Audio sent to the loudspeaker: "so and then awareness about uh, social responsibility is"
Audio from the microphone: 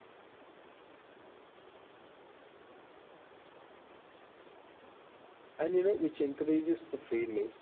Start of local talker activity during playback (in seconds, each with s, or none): 5.6 s